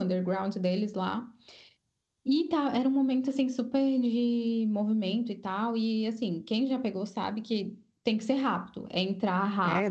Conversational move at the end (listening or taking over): taking over